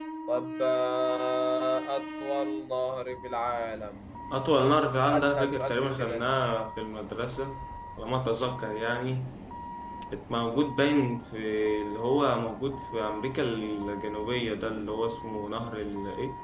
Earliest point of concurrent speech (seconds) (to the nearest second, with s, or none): 5 s